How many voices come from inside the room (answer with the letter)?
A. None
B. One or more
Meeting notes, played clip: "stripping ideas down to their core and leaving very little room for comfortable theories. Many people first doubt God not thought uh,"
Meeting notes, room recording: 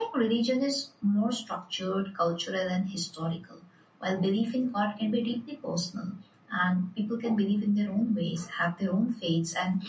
B